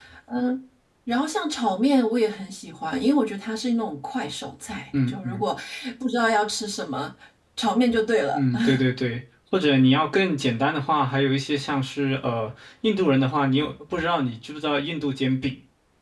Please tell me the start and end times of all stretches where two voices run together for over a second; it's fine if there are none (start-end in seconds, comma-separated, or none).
none